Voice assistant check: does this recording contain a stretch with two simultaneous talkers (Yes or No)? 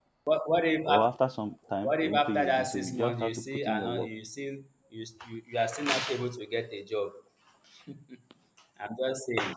Yes